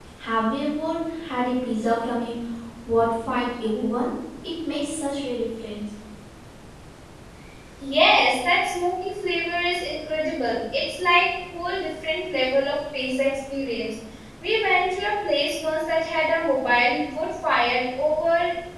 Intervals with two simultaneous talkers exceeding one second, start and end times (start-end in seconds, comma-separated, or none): none